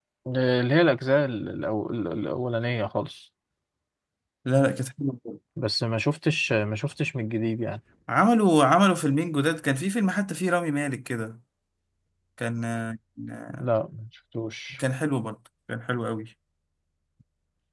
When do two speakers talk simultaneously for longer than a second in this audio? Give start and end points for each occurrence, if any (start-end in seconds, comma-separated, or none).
none